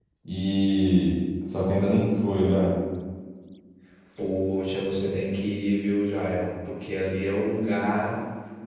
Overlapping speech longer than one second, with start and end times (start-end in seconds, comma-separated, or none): none